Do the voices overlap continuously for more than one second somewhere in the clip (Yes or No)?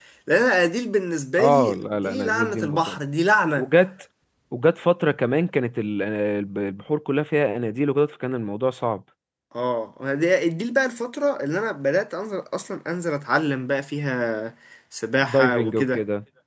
Yes